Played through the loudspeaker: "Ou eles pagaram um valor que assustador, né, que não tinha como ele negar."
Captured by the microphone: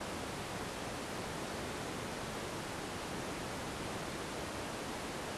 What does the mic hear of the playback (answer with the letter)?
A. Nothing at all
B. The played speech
A